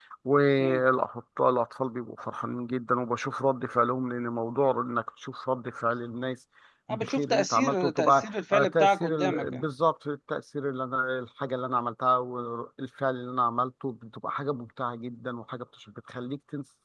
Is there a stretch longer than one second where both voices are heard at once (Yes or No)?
Yes